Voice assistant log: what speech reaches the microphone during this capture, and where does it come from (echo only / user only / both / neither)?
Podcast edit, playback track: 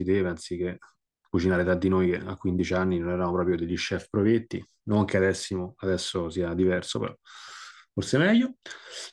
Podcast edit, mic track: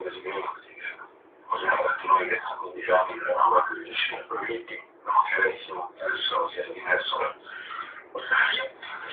echo only